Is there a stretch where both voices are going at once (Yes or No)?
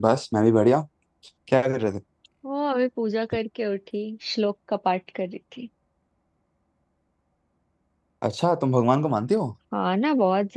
No